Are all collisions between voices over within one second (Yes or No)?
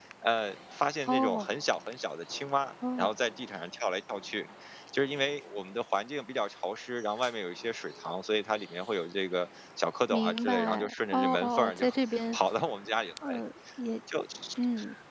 No